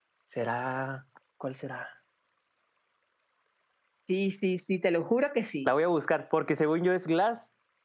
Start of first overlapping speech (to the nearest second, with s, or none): none